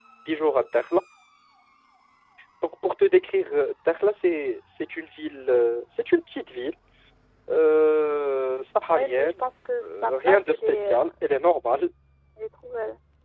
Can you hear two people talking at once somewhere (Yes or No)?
Yes